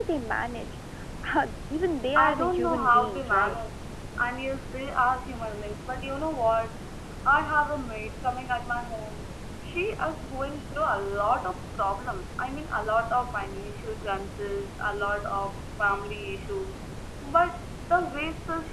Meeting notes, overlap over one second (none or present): present